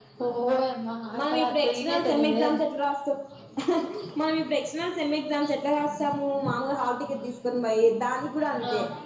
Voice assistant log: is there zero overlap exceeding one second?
No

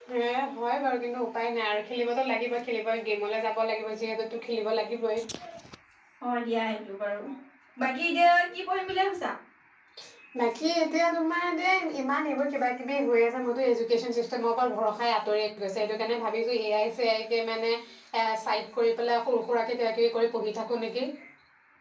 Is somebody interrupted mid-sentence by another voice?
No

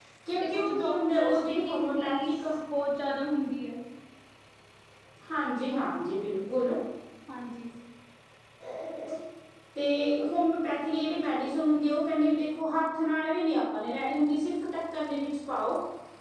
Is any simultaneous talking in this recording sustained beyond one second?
Yes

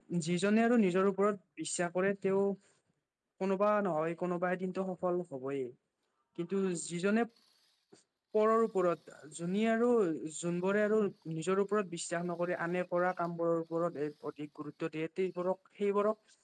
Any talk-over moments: No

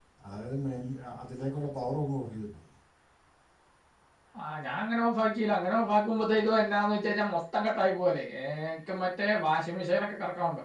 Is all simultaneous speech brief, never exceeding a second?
Yes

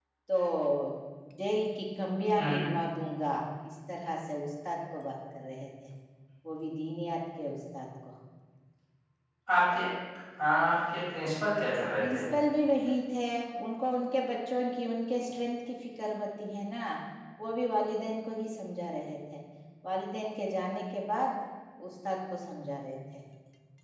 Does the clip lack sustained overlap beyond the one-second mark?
Yes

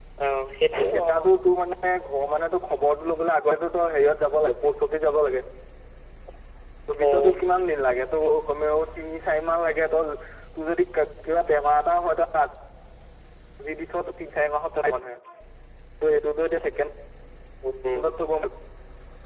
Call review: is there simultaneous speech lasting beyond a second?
No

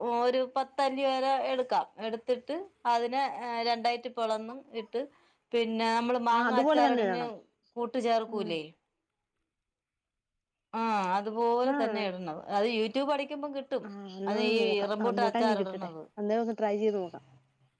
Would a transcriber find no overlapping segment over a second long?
No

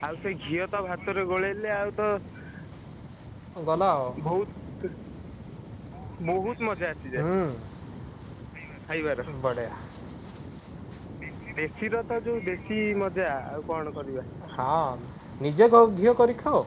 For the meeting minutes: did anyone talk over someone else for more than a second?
No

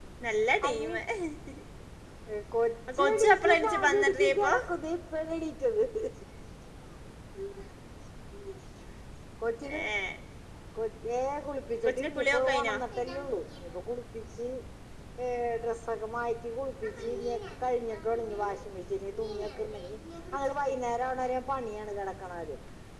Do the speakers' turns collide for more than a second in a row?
Yes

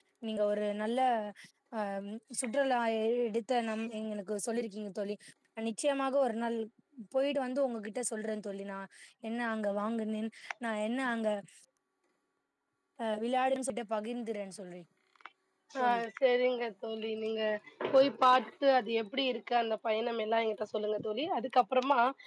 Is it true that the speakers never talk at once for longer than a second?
Yes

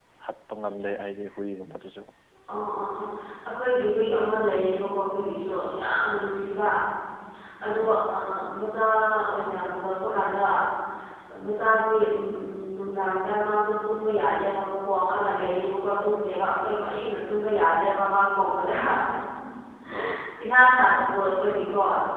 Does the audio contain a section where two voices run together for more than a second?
No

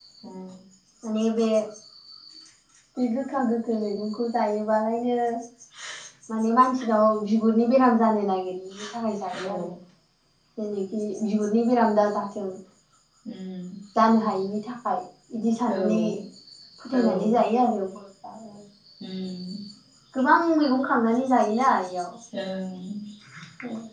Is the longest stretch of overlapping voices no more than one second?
Yes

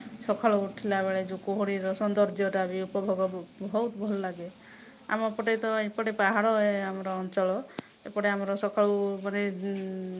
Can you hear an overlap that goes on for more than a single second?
No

